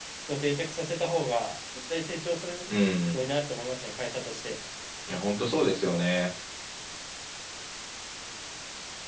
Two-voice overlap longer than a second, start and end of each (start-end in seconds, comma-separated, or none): none